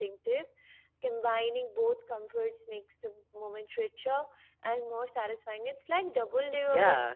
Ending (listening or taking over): taking over